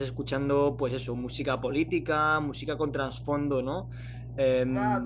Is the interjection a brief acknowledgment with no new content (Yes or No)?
No